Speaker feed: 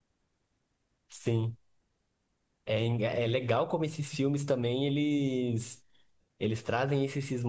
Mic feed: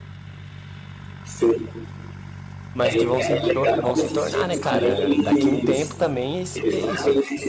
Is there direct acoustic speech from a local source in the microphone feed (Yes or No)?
Yes